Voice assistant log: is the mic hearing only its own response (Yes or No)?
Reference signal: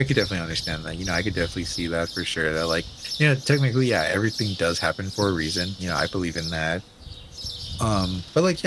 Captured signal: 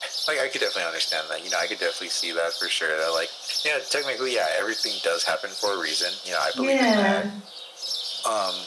No